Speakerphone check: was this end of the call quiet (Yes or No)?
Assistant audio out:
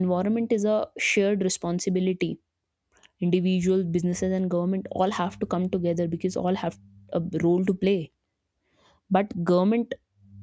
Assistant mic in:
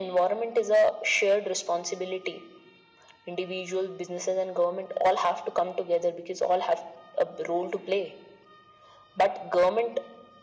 Yes